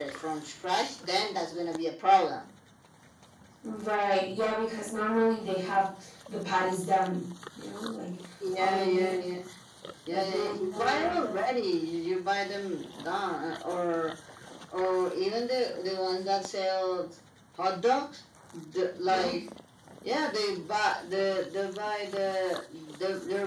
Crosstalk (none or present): present